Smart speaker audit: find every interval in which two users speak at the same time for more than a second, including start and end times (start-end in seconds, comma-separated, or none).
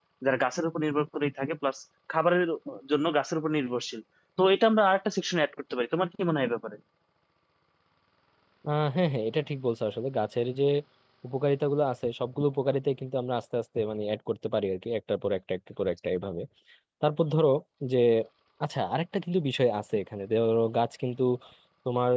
none